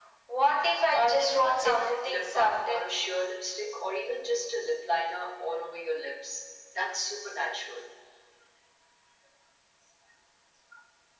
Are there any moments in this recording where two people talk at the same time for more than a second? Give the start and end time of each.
0.9-2.8

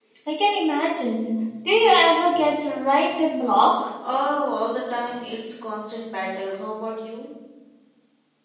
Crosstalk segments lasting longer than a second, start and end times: none

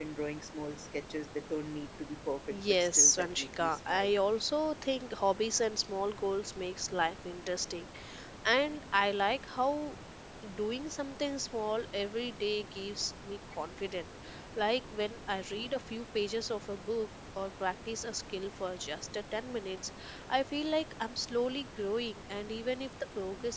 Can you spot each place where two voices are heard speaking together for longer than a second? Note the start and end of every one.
2.5-4.2

